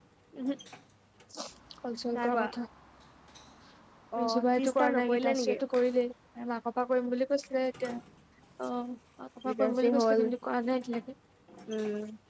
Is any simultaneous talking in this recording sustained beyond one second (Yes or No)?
Yes